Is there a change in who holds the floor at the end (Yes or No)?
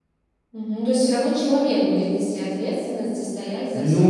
Yes